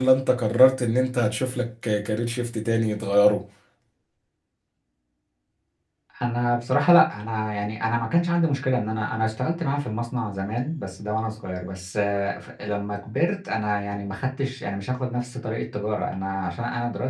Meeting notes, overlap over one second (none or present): none